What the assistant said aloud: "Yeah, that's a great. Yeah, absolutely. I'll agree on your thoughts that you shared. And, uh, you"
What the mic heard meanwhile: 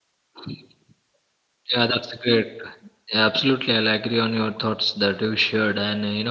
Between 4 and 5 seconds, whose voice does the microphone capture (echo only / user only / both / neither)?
echo only